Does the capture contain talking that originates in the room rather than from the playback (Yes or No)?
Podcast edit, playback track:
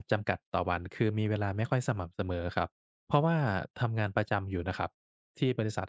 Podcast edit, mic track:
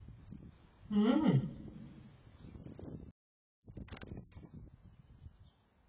Yes